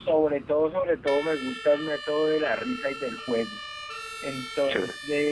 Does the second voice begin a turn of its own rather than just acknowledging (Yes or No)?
No